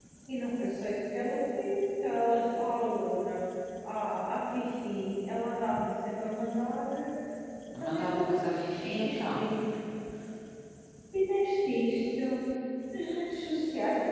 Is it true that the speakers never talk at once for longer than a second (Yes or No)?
No